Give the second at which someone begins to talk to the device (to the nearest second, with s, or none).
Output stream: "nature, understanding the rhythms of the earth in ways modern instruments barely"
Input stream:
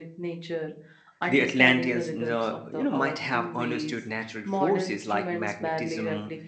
1 s